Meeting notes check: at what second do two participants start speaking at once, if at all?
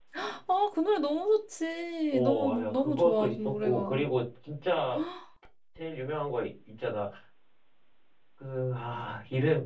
2.1 s

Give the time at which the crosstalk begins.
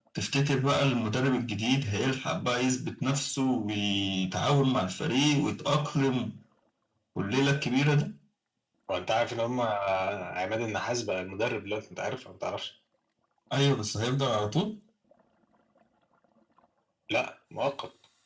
none

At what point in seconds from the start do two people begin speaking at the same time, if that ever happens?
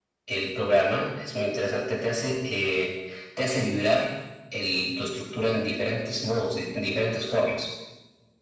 none

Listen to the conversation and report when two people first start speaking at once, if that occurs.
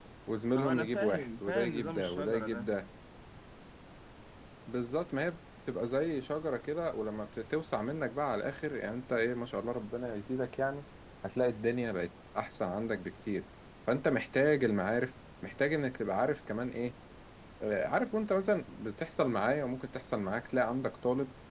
0.6 s

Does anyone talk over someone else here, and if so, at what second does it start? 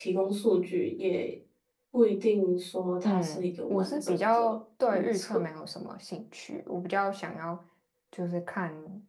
3.0 s

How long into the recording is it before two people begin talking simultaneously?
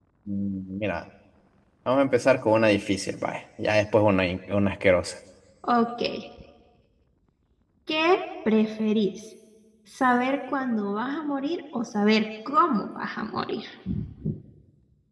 none

